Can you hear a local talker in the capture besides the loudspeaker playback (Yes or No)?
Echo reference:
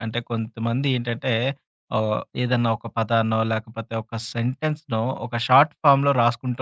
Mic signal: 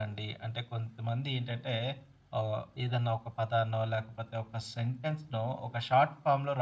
No